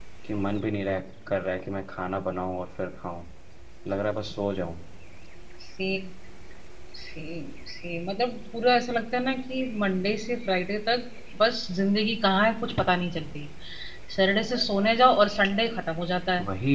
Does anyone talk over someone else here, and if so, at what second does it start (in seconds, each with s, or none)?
none